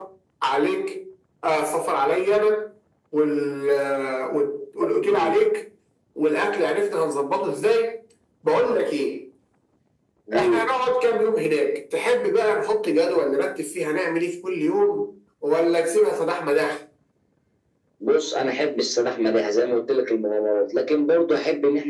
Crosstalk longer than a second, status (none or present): none